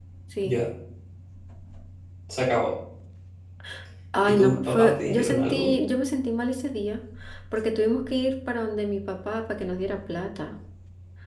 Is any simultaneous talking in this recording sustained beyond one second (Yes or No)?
Yes